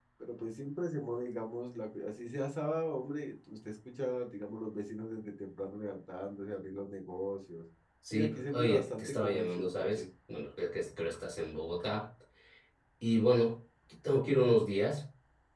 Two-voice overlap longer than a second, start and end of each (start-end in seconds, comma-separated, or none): 8.1-10.0